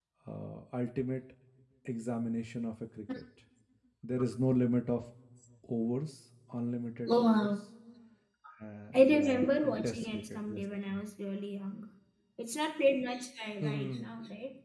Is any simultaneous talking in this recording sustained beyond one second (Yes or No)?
Yes